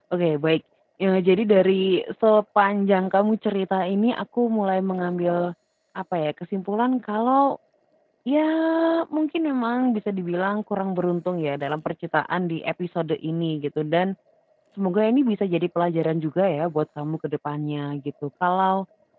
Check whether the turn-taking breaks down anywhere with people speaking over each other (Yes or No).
No